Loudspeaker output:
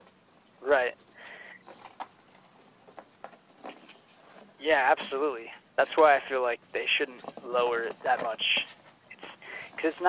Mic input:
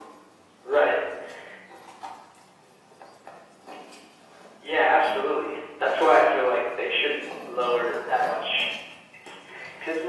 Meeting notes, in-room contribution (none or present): none